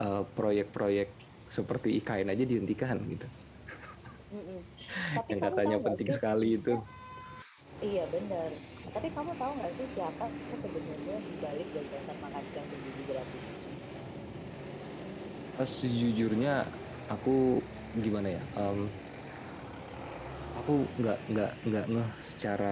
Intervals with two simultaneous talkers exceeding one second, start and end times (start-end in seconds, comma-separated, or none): 5.3-6.8